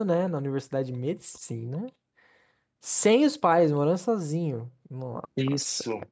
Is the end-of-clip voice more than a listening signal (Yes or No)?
No